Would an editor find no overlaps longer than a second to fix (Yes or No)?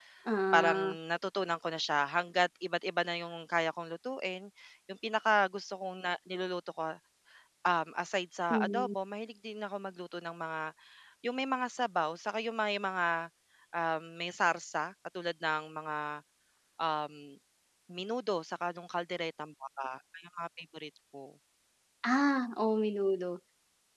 Yes